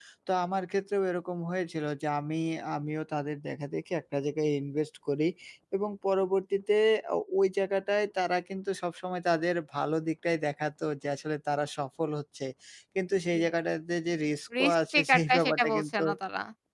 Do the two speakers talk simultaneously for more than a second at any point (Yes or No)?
Yes